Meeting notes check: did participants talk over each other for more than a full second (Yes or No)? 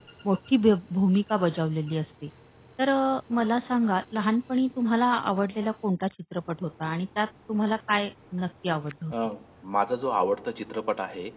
No